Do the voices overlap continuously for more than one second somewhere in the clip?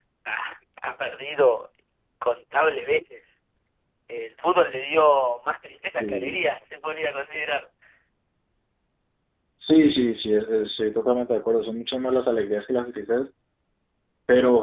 No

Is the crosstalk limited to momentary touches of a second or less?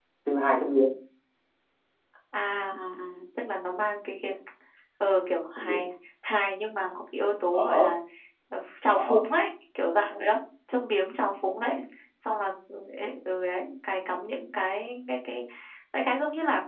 Yes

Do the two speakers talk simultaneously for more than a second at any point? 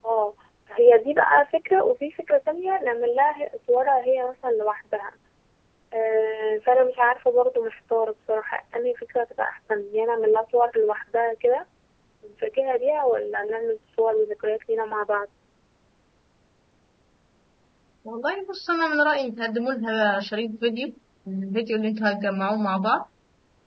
No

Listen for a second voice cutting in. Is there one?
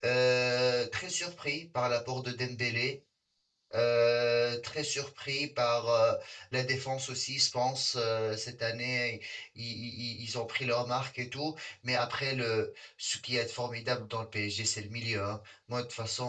No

